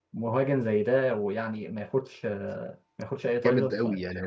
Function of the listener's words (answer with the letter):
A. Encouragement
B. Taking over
B